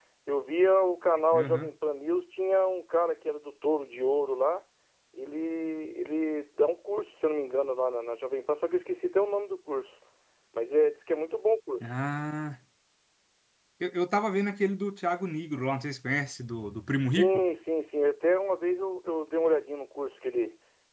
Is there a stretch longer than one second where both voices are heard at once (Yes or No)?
No